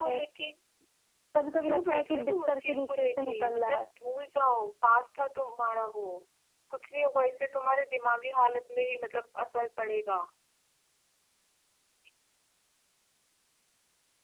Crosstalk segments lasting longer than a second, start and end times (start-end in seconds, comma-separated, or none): 1.6-3.9